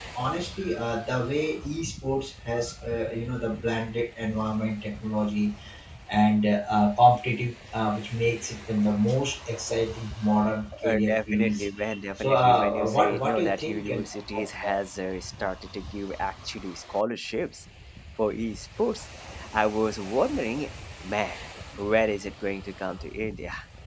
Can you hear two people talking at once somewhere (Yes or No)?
Yes